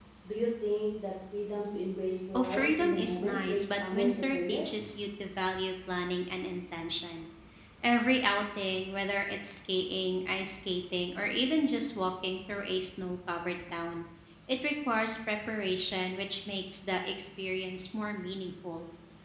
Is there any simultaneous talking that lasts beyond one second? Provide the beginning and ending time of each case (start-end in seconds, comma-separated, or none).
2.3-4.7